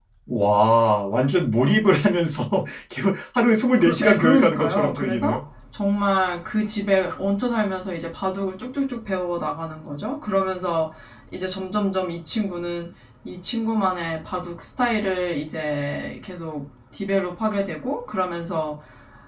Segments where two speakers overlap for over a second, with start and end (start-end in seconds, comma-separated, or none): 3.8-5.4